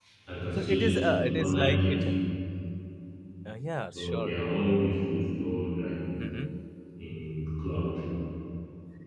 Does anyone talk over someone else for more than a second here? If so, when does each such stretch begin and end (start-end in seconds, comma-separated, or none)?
0.6-2.0